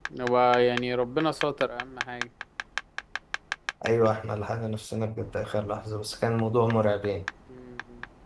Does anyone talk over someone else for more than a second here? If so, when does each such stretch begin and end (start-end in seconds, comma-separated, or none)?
none